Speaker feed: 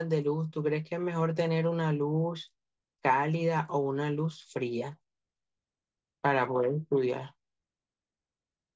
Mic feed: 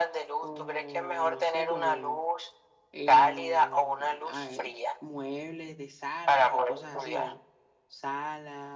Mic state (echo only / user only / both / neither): both